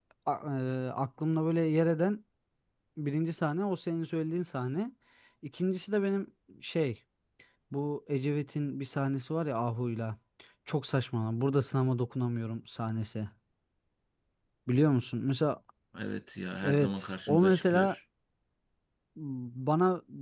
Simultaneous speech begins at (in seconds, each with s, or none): 16.6 s